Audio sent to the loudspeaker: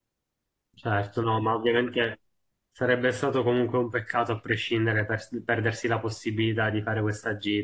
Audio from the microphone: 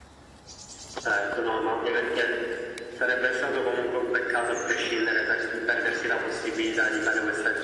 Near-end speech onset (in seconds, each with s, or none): none